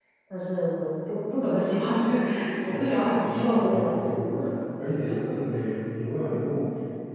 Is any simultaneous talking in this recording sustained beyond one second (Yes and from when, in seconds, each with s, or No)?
Yes, from 2.7 s